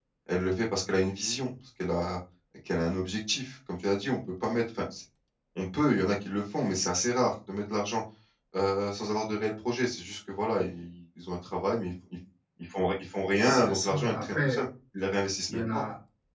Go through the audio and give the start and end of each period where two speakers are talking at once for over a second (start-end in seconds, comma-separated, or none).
13.4-14.6